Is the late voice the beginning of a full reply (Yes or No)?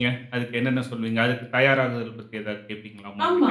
Yes